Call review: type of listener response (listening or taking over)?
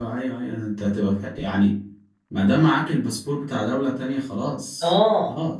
taking over